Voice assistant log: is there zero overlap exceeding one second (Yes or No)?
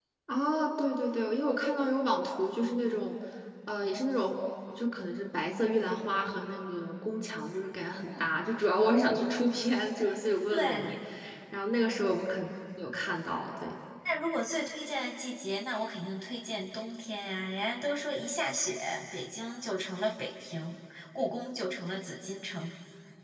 Yes